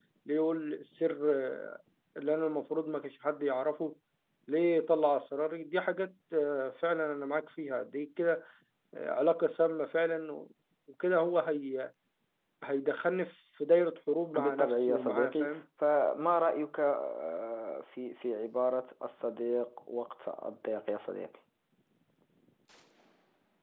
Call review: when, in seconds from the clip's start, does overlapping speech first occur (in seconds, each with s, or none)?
14.3 s